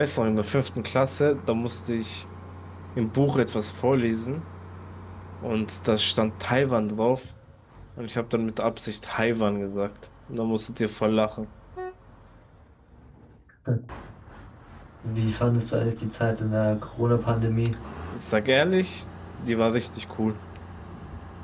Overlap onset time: none

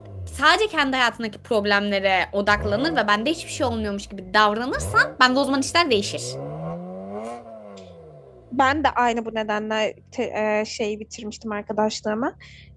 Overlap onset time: none

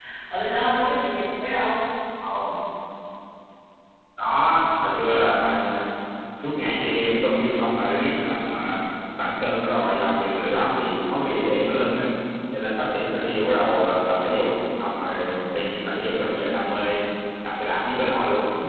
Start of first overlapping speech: none

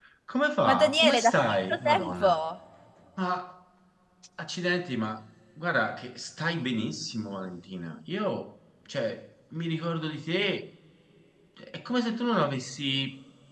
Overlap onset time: 0.6 s

